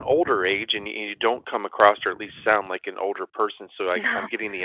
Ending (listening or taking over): listening